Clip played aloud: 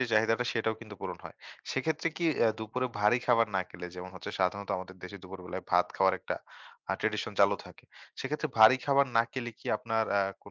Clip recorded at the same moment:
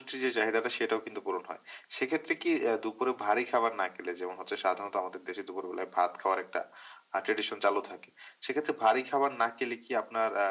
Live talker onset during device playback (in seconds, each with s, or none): none